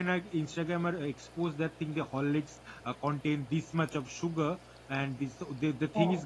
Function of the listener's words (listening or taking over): listening